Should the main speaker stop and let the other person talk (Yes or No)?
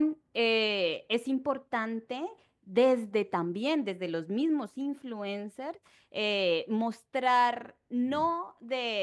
No